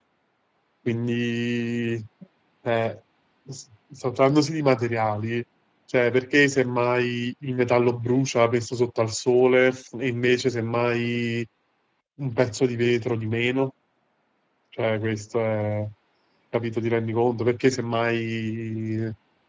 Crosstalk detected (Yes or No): No